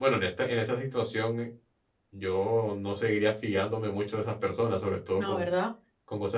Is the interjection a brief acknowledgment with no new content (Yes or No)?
Yes